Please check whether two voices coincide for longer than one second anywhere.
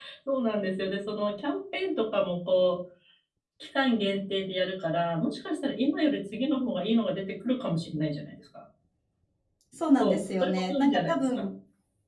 Yes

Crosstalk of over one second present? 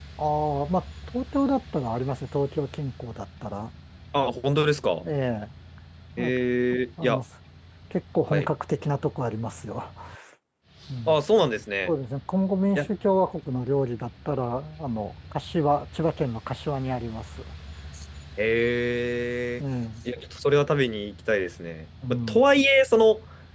No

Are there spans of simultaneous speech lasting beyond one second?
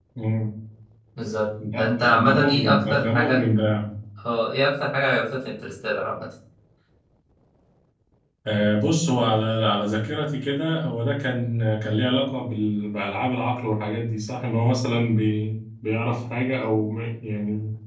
Yes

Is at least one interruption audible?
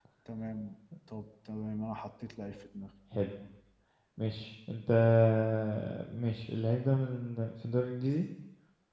No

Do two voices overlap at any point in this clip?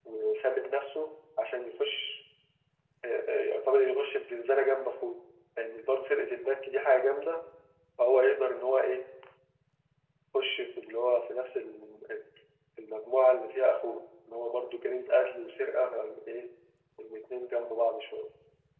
No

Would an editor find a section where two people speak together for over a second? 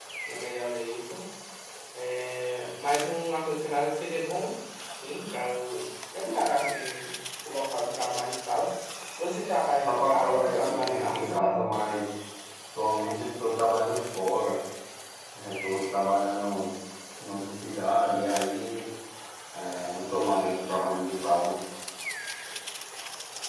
Yes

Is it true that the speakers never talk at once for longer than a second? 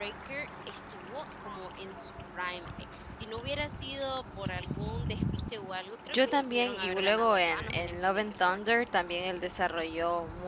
No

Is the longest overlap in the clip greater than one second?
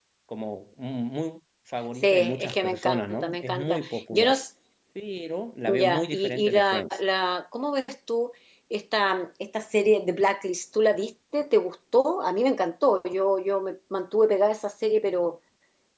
Yes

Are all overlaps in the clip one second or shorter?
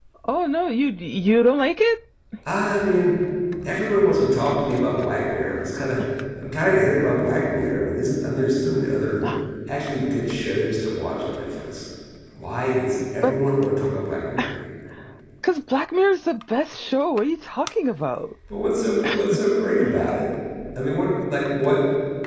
Yes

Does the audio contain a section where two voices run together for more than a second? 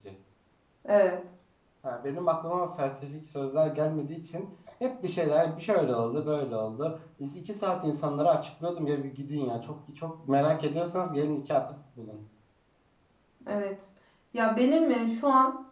No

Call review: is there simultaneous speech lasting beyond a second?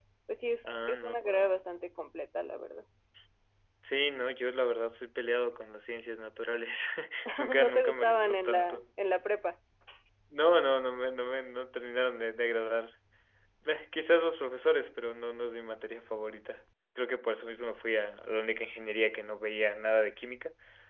Yes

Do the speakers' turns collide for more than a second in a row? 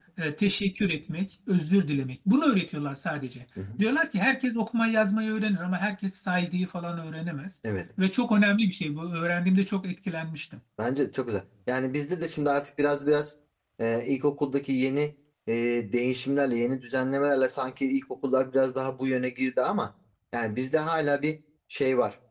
No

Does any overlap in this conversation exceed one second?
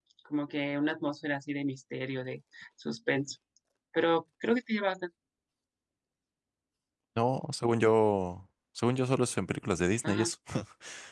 No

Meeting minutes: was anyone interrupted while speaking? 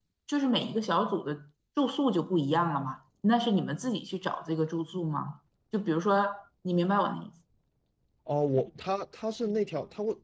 No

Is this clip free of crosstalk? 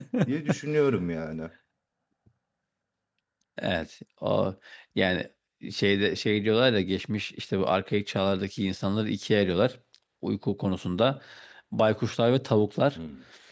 Yes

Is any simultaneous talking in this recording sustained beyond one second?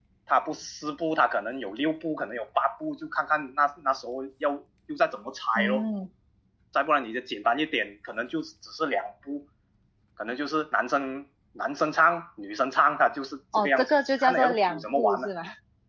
Yes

